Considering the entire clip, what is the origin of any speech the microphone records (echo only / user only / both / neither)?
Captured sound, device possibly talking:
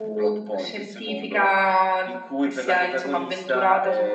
both